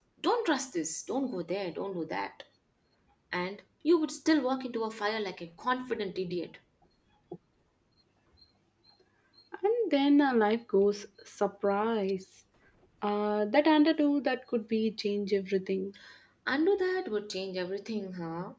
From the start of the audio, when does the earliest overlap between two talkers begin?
none

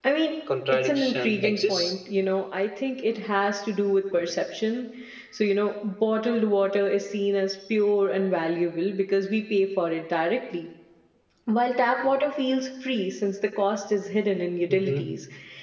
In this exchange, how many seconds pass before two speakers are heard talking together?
0.7 s

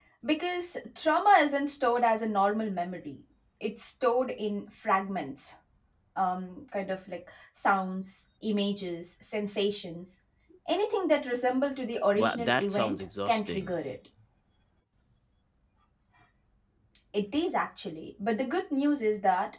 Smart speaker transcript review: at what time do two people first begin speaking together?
12.2 s

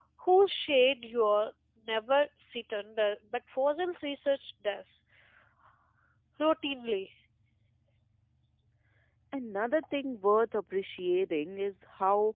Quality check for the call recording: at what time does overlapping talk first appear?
none

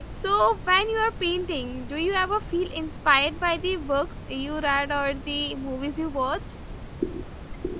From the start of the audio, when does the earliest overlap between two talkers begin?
none

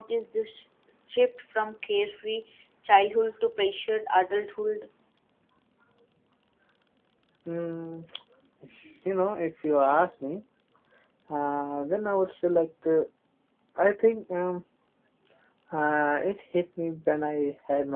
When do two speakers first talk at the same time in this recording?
none

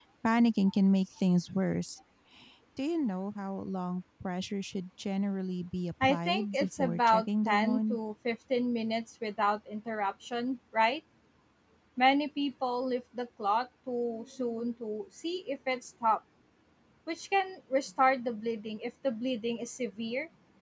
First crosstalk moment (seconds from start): 6.0 s

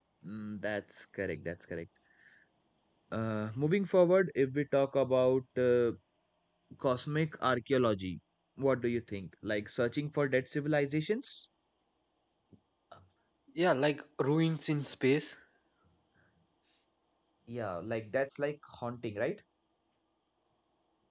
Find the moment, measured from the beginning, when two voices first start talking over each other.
none

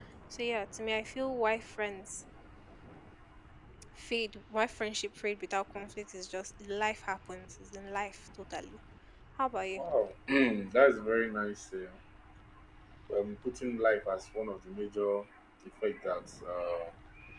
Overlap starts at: none

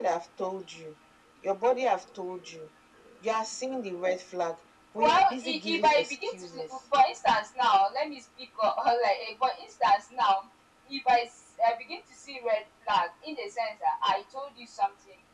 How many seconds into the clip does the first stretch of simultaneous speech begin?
5.0 s

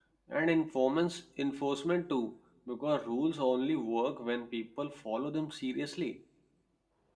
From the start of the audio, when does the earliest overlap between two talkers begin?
none

